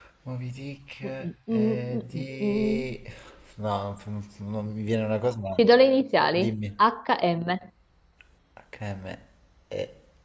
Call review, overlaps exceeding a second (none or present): present